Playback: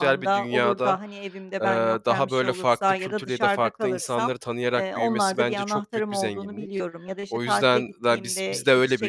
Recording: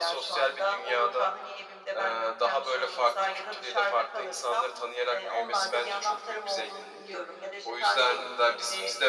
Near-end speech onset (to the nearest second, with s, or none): none